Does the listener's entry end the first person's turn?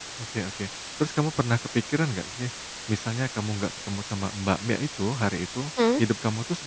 No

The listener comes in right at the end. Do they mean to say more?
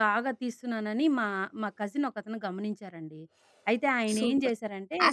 Yes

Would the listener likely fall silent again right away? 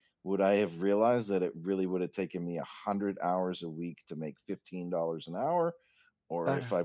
Yes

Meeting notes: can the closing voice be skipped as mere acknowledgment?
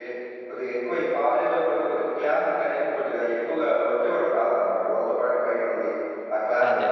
Yes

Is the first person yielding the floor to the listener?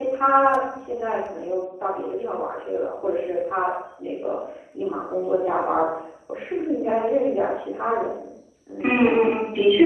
Yes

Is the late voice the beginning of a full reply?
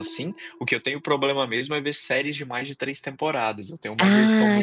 Yes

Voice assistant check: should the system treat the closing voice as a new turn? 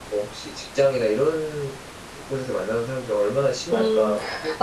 Yes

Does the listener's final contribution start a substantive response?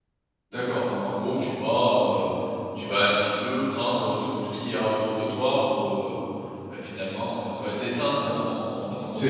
Yes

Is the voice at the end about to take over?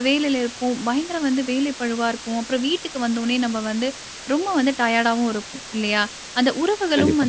No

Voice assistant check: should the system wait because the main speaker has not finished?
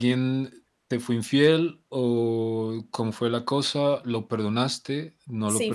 No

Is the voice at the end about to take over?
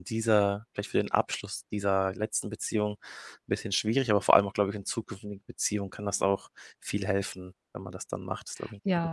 Yes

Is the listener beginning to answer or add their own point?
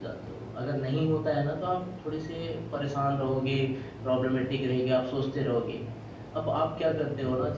No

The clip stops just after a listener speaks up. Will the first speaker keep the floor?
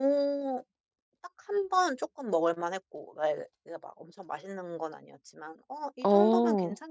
Yes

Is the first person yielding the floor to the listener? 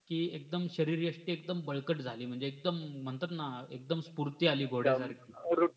Yes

